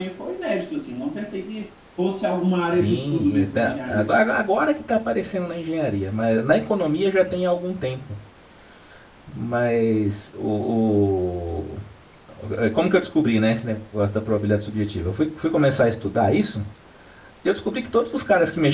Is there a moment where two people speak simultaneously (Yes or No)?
Yes